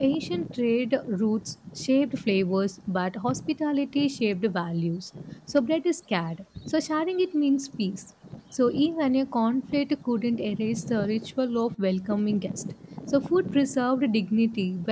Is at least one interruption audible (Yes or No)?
No